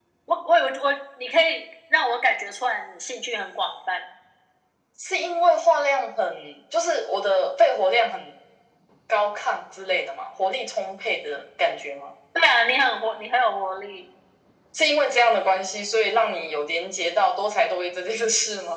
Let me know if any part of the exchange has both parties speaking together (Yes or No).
No